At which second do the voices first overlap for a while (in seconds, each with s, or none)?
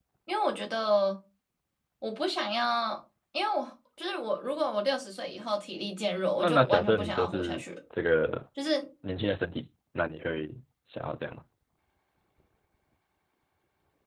6.4 s